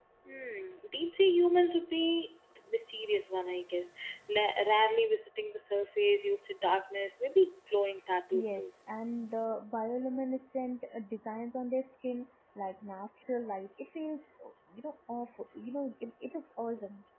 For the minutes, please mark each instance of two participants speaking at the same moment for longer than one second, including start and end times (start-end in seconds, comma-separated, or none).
none